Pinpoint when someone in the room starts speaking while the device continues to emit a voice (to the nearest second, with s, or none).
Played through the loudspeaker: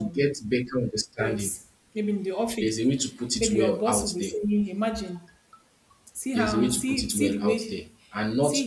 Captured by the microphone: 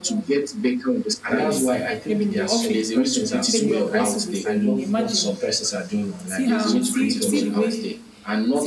1 s